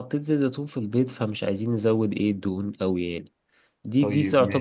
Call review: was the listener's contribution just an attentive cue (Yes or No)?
Yes